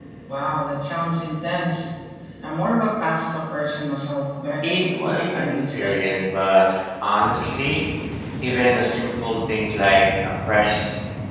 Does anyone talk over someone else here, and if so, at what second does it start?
4.6 s

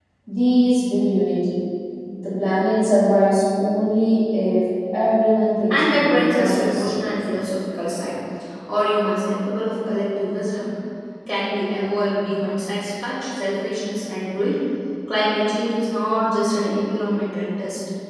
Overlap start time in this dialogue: 5.7 s

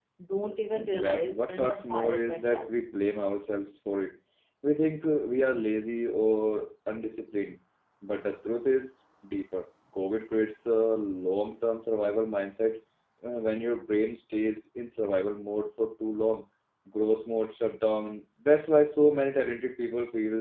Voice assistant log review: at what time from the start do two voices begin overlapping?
0.7 s

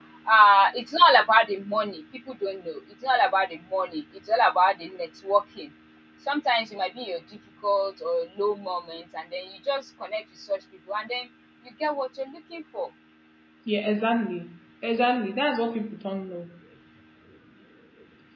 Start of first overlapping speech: none

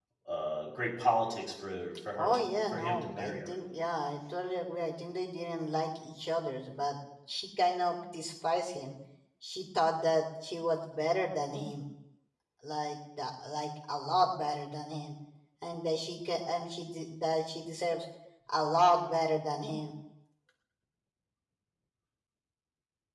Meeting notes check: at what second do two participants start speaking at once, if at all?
2.2 s

